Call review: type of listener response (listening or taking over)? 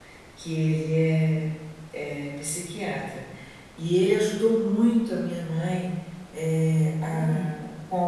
listening